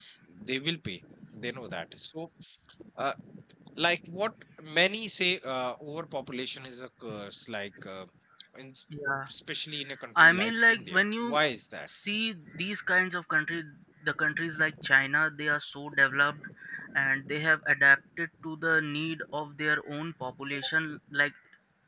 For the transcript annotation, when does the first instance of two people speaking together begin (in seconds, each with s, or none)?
10.2 s